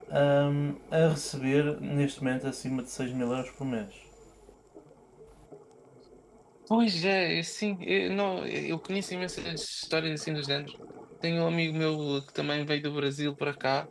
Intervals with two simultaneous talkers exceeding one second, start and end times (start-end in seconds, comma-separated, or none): none